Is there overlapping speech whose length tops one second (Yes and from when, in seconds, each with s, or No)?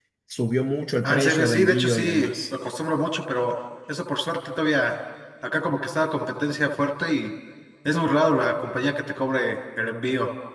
Yes, from 1.0 s